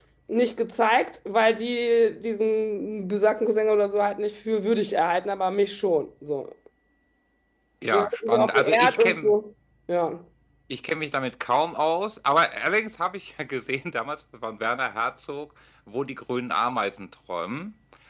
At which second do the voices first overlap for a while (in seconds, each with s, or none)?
7.9 s